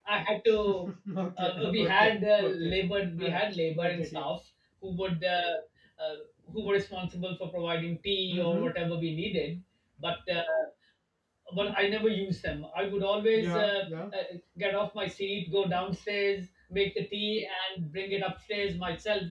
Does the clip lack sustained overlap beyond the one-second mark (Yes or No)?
No